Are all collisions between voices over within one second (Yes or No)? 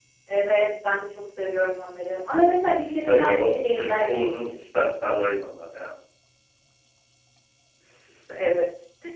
No